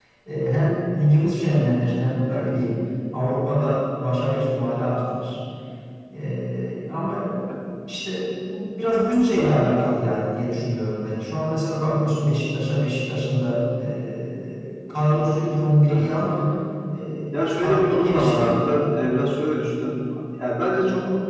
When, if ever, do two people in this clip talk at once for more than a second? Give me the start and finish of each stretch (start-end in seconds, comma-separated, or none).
17.3-18.5